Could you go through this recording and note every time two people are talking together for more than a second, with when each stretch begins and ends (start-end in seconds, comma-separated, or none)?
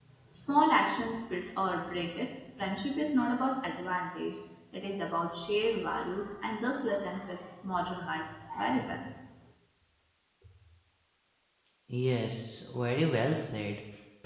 none